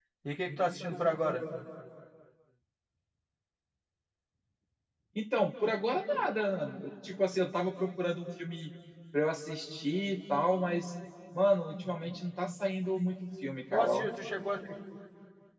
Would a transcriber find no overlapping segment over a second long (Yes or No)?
Yes